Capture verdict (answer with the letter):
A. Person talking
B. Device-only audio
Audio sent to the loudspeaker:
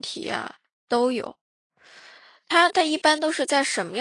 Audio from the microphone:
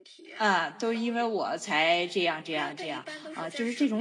A